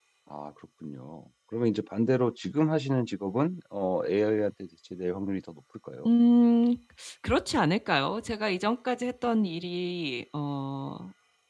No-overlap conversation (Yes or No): Yes